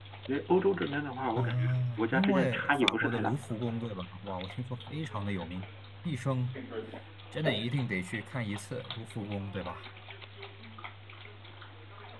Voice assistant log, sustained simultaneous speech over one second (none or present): present